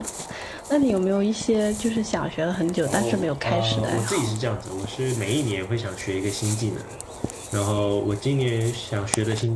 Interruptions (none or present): present